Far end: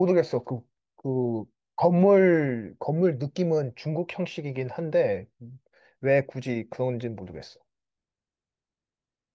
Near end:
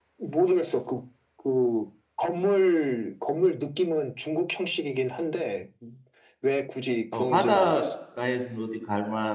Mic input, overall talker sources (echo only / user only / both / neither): both